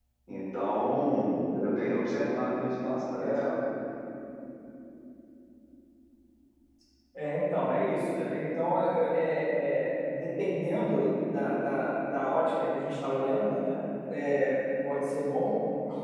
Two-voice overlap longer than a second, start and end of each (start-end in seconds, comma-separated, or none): none